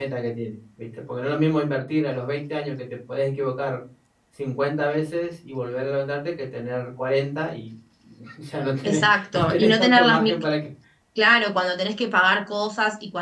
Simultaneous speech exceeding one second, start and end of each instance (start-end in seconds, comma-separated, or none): 8.8-10.3